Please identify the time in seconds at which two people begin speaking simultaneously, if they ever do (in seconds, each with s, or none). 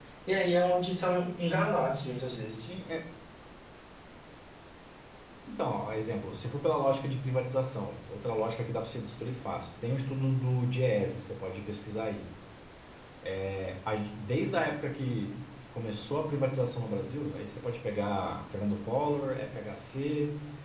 none